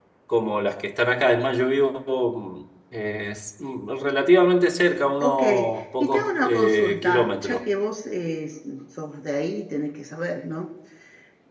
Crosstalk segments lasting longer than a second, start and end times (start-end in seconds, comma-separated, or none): 6.0-7.6